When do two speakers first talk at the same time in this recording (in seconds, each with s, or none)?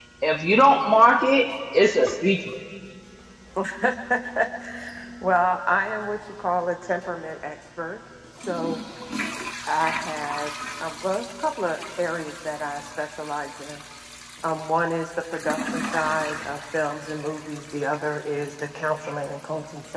none